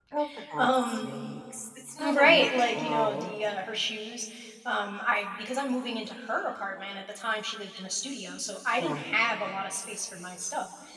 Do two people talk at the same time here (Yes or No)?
Yes